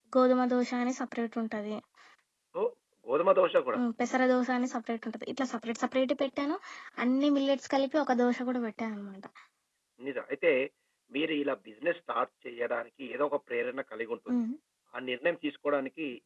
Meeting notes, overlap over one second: none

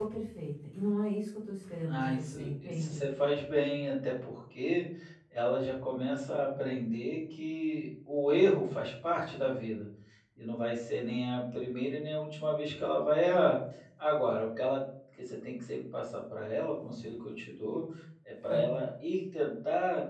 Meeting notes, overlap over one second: present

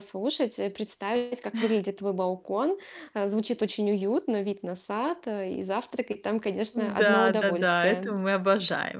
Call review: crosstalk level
present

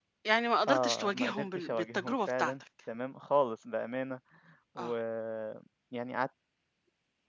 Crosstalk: present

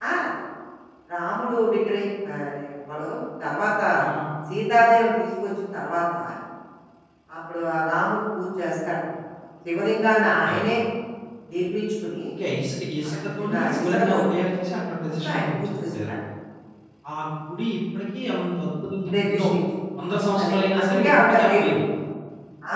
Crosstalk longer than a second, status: present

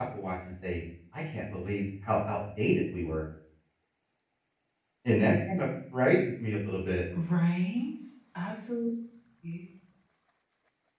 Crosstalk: none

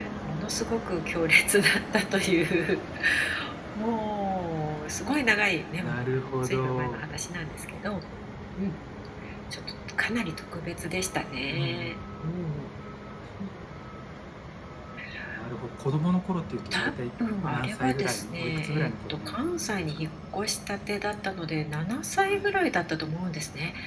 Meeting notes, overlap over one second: present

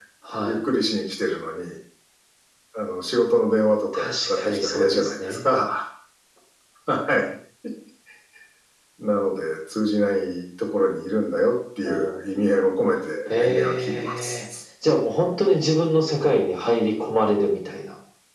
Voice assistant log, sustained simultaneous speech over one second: present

